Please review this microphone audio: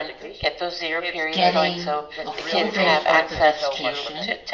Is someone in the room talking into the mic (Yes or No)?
Yes